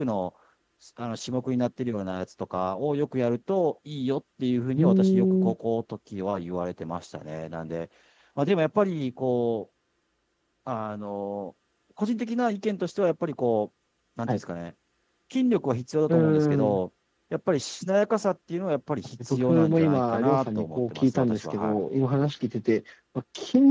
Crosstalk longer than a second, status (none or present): present